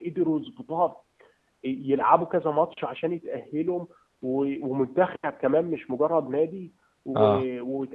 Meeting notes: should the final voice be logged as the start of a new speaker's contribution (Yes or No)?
No